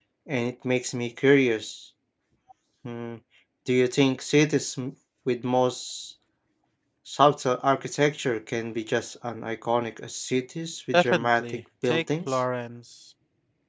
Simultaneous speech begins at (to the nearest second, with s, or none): 11 s